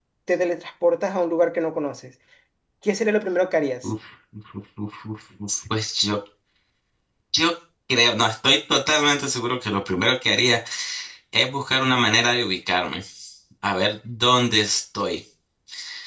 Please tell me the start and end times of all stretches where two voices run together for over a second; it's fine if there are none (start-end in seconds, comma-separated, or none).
none